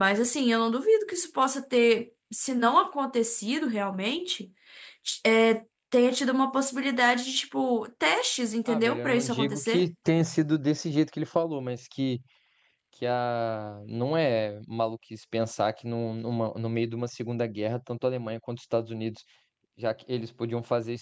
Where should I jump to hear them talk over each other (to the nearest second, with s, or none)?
9 s